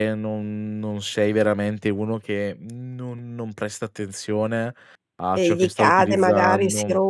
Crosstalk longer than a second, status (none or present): present